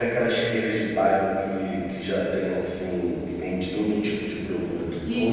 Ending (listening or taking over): taking over